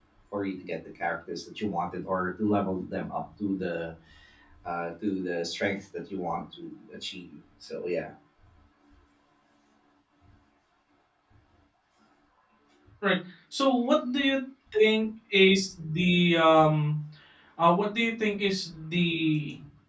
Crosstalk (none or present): none